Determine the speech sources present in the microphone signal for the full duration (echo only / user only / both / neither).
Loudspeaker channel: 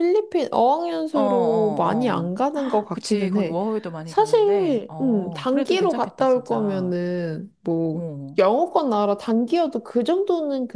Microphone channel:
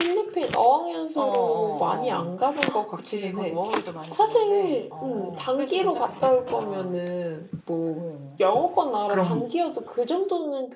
both